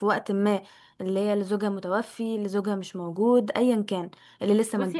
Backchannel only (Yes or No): No